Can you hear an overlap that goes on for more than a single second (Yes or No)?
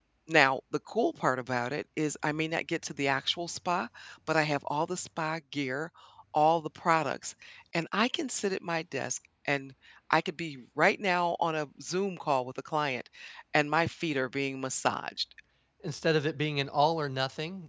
No